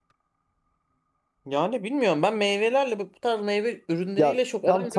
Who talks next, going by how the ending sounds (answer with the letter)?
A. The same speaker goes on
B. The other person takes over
B